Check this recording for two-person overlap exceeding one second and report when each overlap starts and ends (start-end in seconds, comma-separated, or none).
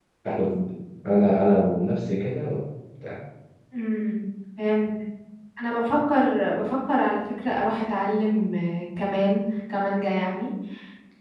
none